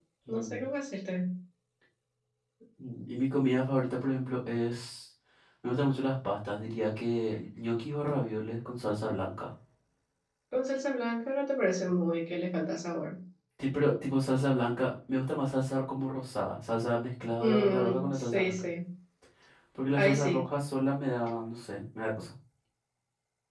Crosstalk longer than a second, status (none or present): present